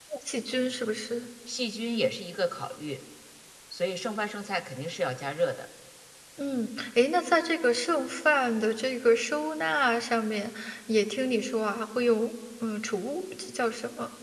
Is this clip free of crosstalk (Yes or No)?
Yes